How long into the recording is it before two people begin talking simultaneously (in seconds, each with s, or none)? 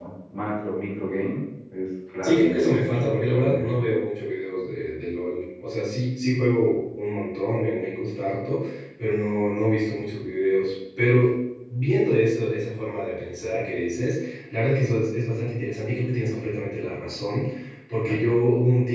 2.2 s